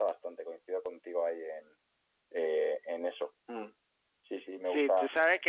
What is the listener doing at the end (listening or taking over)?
taking over